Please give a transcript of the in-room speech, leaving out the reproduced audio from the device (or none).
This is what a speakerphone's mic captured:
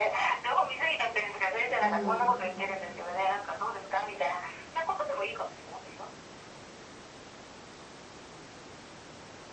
うん。